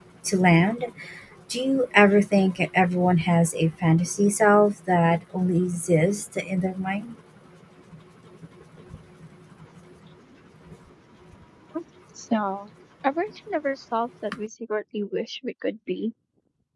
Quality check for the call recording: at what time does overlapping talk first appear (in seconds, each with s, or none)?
none